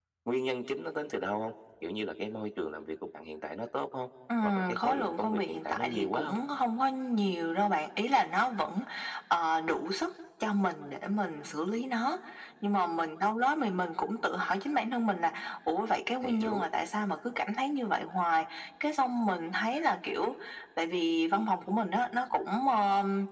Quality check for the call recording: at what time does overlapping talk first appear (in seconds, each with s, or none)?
4.4 s